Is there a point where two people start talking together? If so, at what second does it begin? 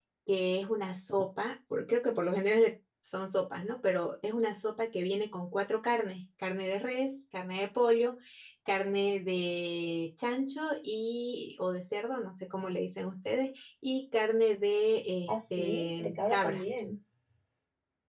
15.3 s

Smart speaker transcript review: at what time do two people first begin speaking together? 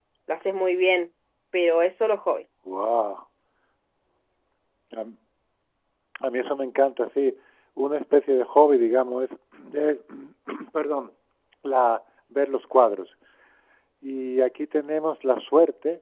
none

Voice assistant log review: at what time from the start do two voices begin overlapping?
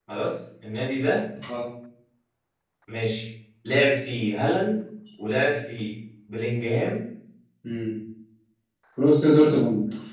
none

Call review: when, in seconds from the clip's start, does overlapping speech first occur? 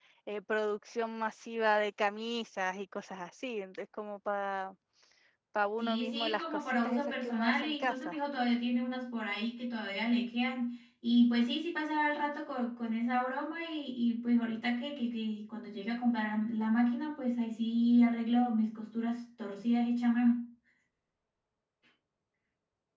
5.8 s

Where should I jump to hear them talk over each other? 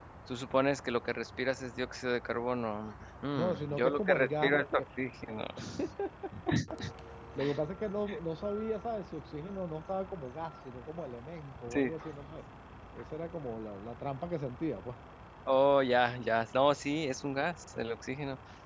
3.4 s

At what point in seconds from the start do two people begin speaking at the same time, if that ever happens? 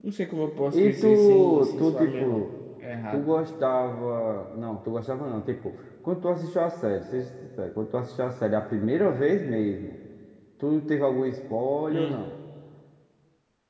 0.7 s

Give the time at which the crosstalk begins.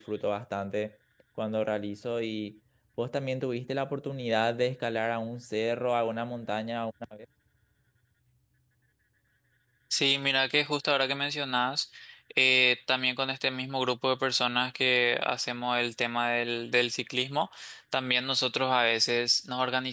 none

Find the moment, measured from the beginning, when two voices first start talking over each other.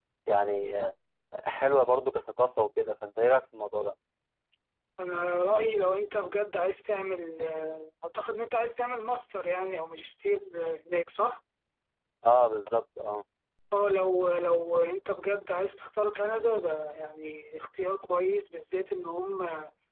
none

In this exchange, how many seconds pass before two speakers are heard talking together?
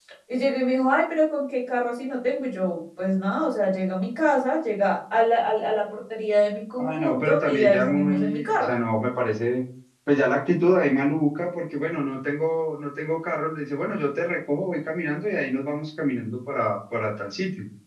6.8 s

